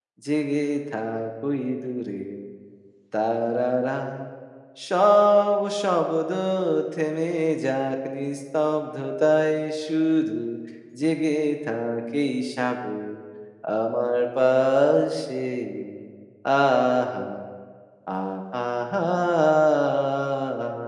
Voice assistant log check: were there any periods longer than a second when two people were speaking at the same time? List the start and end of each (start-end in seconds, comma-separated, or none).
none